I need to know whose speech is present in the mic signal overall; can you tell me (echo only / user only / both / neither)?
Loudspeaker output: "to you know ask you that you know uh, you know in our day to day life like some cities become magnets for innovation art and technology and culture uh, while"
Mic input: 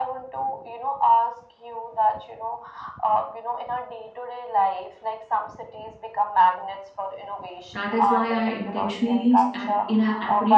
both